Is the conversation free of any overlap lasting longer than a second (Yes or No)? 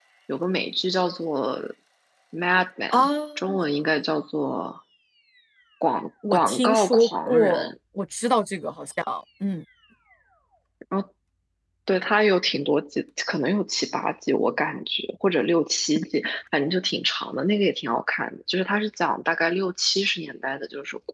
No